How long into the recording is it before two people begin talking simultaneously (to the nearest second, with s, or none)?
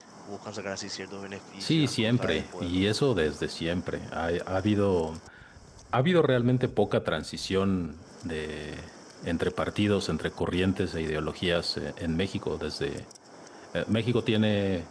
2 s